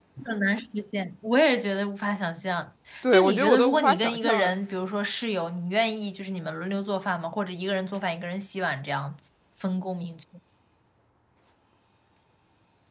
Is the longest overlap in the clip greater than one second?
Yes, from 3.0 s

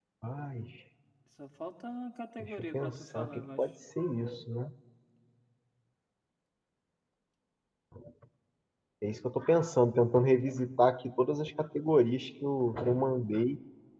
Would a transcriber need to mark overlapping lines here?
Yes, from 2.4 s

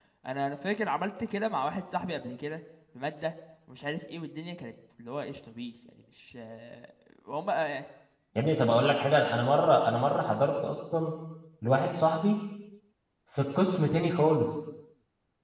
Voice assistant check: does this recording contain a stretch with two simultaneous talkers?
No

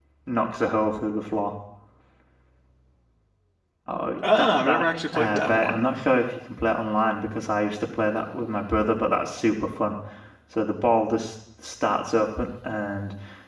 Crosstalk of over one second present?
Yes, from 4.4 s

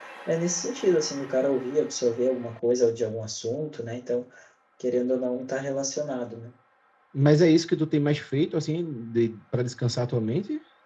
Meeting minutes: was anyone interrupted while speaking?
No

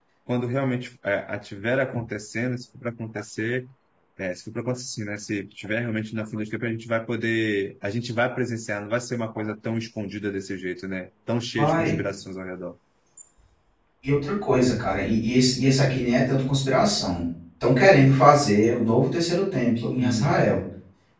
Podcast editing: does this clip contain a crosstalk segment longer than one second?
No

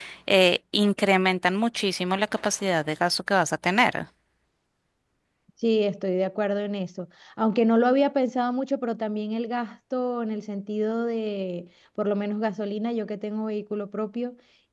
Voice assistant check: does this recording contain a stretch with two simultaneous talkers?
No

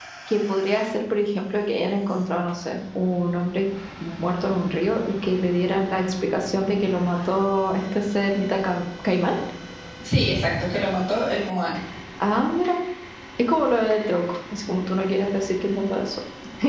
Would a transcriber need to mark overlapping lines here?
No

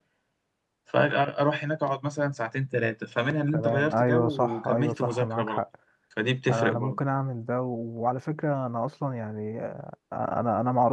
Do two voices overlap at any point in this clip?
Yes, from 3.5 s

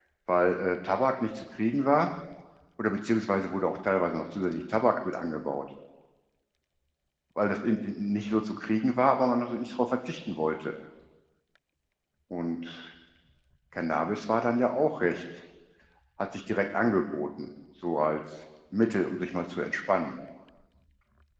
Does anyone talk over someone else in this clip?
No

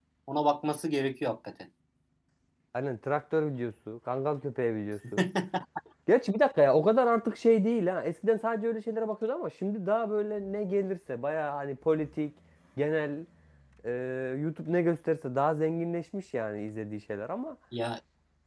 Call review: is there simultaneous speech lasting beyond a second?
No

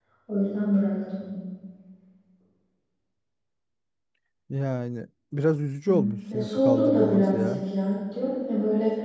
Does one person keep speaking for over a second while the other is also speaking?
Yes, from 5.9 s

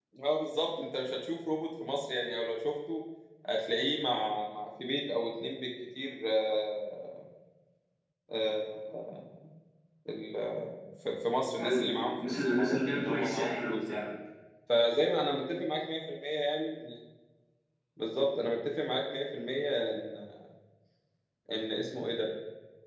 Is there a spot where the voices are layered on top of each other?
Yes, from 11.6 s

